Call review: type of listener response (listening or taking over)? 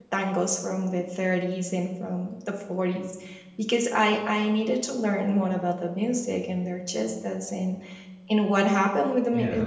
listening